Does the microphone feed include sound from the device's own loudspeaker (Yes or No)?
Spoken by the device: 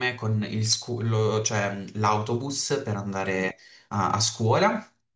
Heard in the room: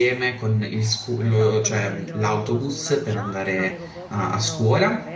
Yes